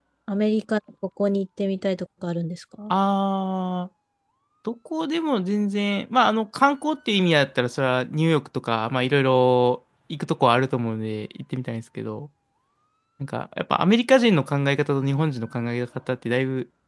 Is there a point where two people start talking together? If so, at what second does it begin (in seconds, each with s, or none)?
none